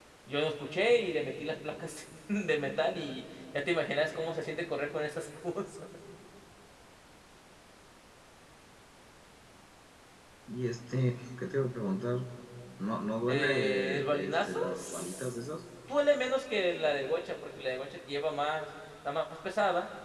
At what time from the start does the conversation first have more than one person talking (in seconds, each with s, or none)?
13.3 s